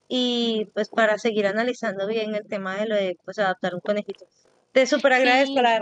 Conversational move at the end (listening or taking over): listening